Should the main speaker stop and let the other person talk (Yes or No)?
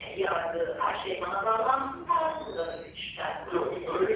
Yes